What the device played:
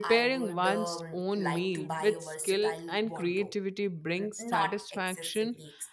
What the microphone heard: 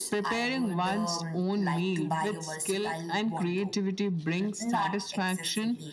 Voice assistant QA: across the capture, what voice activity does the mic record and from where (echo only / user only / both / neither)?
echo only